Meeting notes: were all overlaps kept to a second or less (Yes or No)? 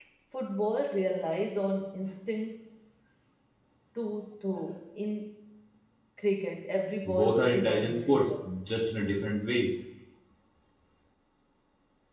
No